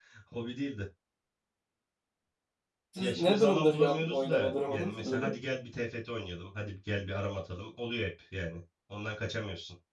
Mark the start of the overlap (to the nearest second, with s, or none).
3 s